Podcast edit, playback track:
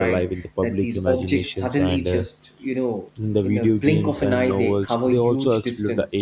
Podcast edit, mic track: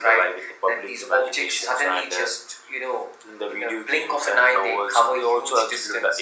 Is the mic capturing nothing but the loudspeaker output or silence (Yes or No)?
Yes